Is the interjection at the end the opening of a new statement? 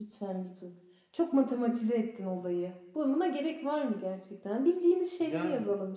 No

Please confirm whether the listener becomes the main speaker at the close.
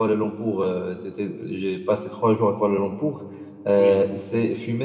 No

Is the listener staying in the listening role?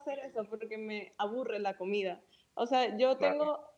Yes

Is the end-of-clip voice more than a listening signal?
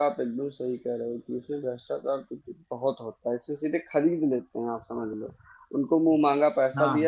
No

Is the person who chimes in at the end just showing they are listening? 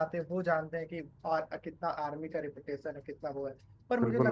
Yes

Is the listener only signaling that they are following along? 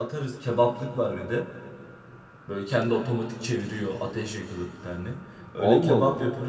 Yes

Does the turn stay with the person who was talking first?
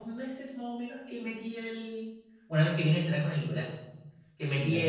Yes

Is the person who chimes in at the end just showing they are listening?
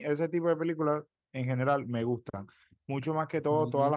Yes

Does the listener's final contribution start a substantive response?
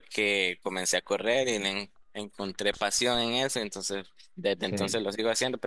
No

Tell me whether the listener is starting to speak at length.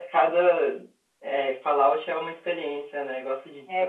Yes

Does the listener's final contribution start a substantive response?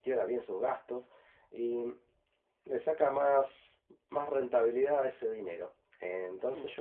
No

